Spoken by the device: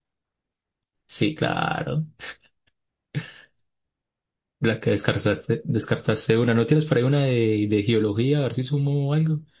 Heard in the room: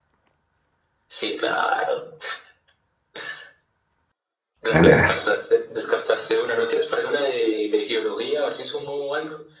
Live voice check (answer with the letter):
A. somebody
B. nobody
A